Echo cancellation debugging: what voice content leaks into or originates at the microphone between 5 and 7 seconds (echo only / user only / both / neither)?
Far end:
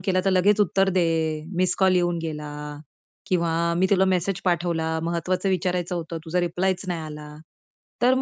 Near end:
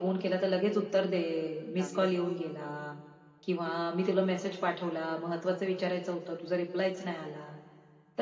echo only